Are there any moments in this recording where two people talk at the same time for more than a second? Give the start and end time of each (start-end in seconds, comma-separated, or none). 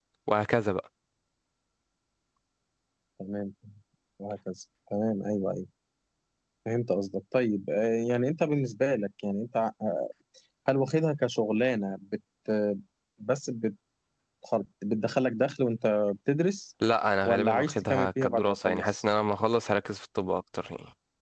17.2-19.0